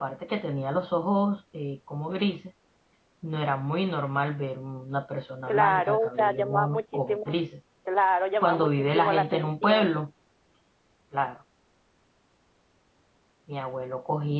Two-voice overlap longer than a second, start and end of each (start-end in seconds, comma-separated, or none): 5.5-7.4, 8.4-9.9